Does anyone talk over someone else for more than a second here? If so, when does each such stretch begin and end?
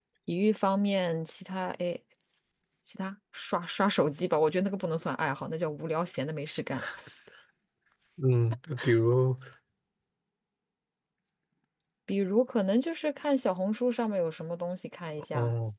none

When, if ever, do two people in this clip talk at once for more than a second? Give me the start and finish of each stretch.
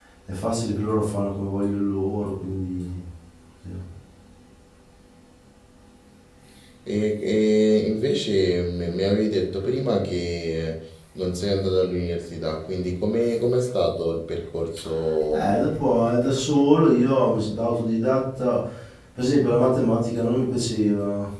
none

